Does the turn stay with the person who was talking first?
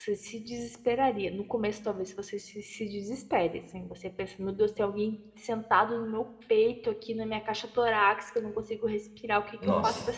Yes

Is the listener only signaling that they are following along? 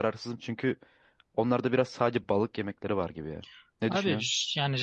No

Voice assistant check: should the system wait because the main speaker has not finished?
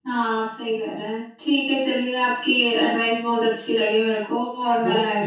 No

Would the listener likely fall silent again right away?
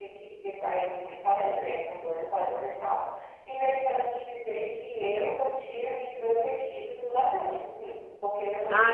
No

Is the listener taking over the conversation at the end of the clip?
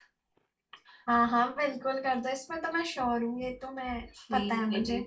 Yes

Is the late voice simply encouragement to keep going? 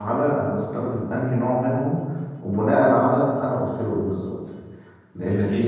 Yes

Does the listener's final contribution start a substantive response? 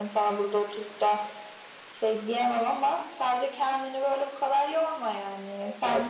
No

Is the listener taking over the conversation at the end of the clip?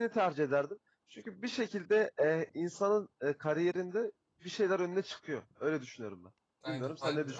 Yes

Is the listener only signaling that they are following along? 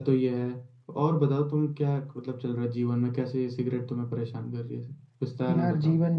No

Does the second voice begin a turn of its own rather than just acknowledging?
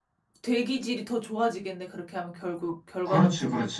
Yes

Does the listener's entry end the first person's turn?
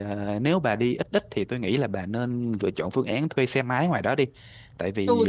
Yes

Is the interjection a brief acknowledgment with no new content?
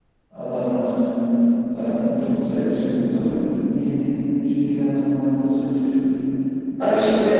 No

